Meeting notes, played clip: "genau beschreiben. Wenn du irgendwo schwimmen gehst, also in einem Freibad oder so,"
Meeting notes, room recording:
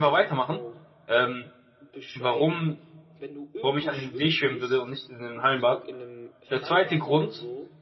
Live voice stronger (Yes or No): Yes